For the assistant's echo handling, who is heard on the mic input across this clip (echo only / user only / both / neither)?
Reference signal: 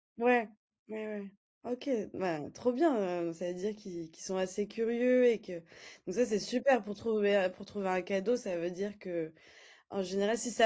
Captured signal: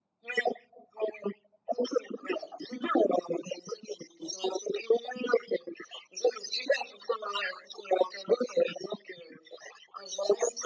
echo only